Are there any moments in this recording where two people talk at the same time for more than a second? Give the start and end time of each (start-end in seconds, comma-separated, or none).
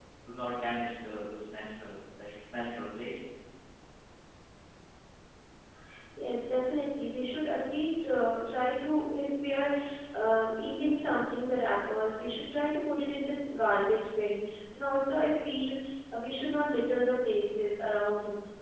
none